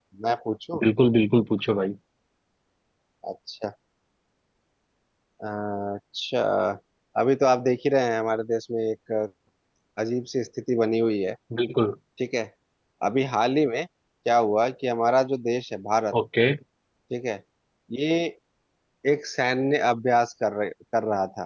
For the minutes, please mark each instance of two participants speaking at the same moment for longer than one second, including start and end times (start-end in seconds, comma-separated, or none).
none